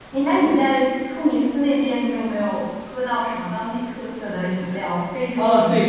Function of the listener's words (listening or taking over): taking over